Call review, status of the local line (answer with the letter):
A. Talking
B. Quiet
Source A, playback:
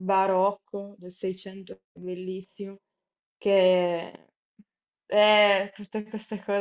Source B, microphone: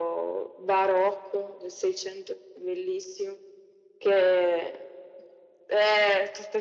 B